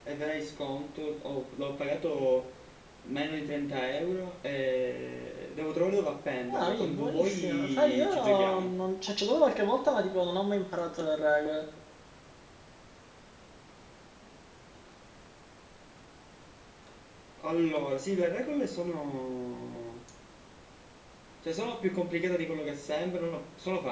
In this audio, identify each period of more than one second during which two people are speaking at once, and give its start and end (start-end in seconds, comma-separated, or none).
6.5-8.7